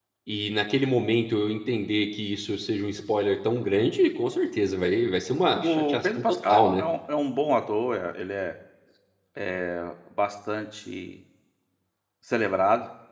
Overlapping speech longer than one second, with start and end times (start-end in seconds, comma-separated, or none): 5.6-6.8